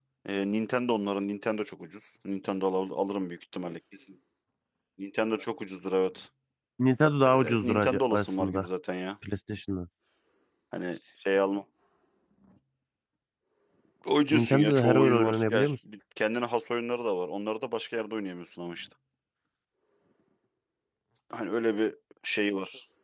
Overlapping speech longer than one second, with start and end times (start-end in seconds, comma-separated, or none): 7.3-8.7, 14.3-15.7